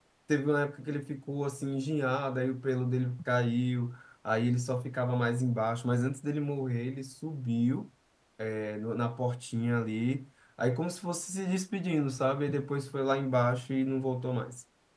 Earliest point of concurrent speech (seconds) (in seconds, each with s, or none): none